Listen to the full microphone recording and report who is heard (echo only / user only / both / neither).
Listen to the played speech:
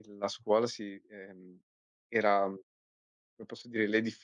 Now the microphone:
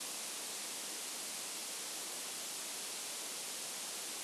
neither